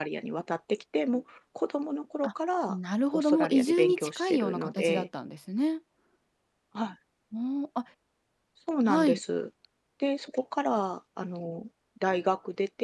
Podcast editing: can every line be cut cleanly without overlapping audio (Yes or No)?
No